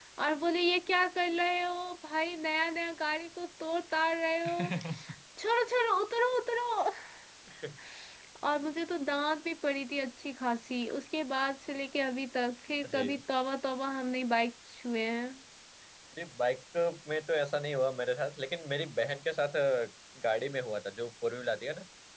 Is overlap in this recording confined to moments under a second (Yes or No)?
Yes